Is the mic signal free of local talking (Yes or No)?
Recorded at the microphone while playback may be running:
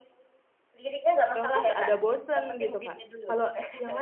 No